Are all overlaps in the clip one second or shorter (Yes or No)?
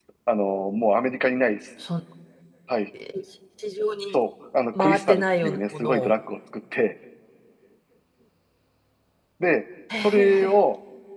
No